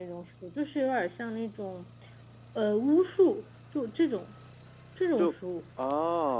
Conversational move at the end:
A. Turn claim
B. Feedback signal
A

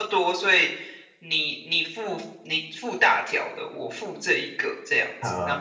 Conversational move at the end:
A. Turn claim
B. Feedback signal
A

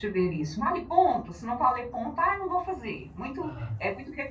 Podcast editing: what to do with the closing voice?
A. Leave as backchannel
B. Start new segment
A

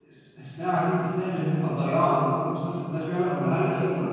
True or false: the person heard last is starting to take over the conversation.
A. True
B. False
B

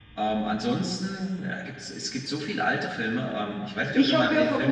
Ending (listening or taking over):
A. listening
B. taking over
B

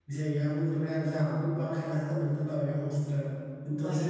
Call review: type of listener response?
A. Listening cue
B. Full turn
A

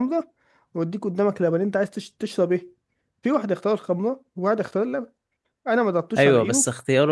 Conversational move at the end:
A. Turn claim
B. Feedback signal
A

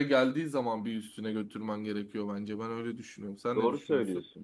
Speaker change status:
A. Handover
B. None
A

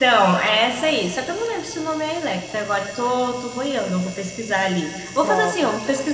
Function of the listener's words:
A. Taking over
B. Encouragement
A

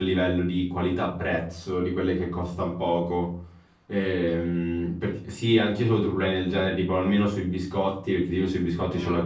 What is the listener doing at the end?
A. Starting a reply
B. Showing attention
B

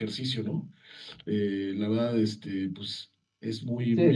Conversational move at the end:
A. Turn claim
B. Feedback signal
A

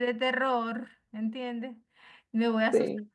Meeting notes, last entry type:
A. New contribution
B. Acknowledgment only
B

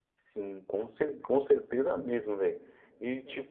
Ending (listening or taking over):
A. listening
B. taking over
A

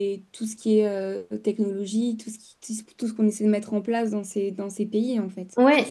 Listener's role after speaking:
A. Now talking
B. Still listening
A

